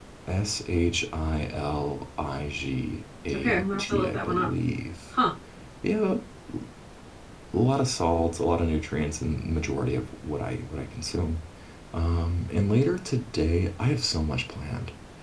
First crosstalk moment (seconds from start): 3.3 s

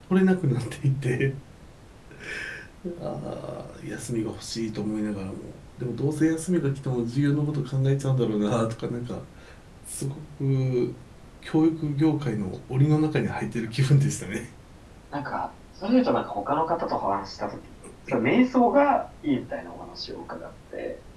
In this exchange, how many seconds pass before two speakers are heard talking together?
none

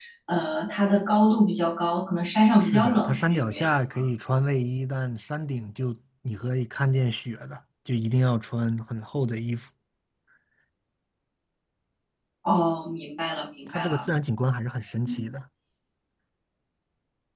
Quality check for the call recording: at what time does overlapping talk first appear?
2.6 s

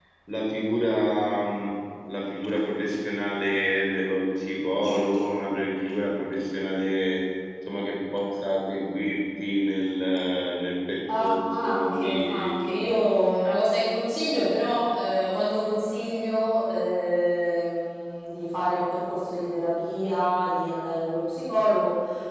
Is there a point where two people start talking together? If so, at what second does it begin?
11.1 s

